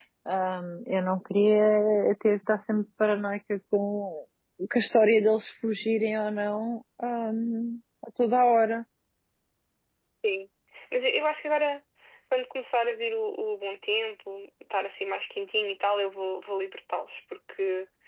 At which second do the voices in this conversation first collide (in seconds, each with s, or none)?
none